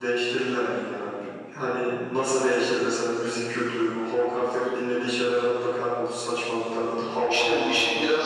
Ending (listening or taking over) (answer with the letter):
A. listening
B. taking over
B